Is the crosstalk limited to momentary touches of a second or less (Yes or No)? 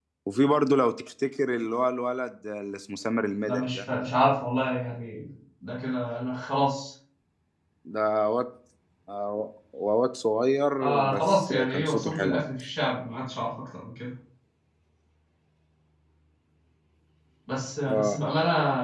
No